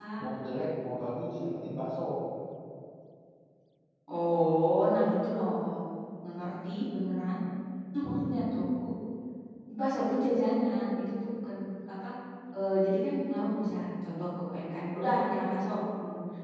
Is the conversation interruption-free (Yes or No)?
Yes